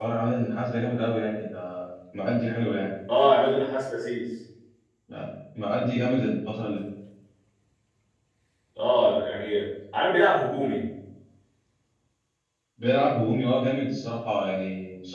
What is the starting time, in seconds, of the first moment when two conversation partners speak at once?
none

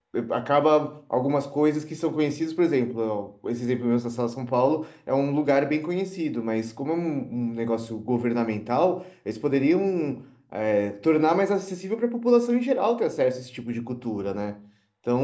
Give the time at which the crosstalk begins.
none

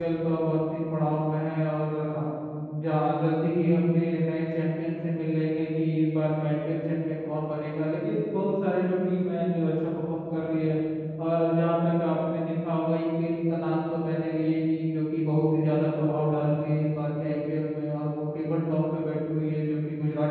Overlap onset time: none

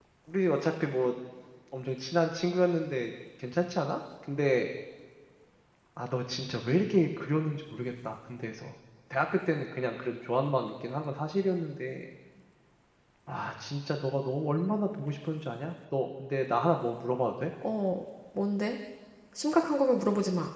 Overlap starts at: none

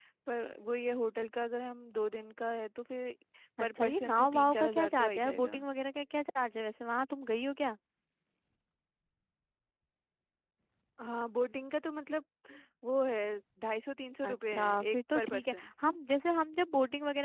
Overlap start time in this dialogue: 3.6 s

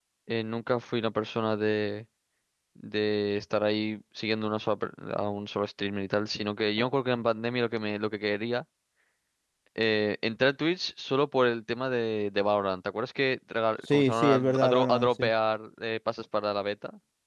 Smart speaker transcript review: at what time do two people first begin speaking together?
13.9 s

